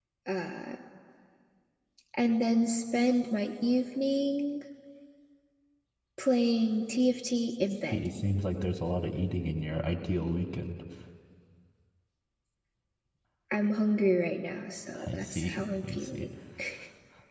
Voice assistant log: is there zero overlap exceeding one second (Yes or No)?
No